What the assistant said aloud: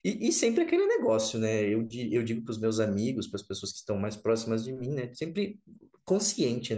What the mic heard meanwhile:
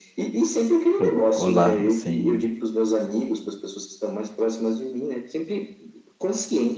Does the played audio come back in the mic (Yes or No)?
Yes